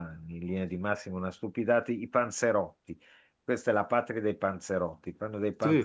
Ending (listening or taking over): listening